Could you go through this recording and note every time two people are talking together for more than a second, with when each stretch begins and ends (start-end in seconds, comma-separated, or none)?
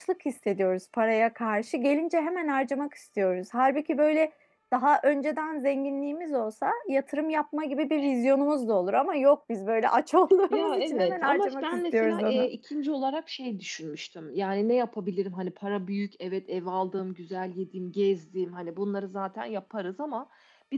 10.5-12.5